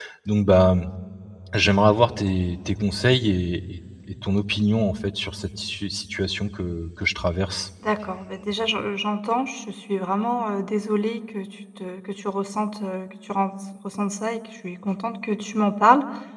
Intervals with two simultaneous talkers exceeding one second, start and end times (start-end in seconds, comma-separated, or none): none